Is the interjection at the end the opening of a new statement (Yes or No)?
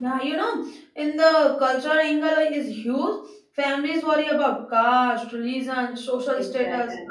No